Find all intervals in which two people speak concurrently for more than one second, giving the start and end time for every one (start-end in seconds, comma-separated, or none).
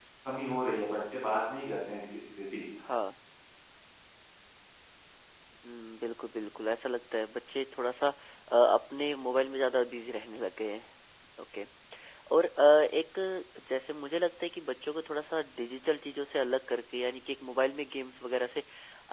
none